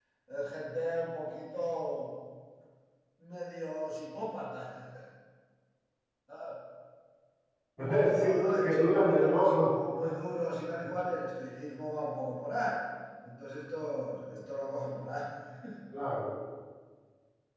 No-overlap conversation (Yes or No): No